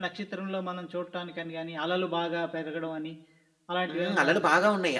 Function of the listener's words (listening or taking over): taking over